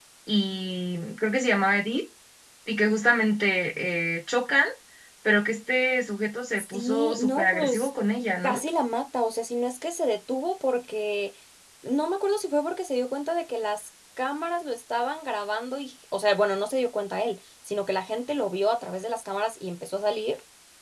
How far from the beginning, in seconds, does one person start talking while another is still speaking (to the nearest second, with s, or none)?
7 s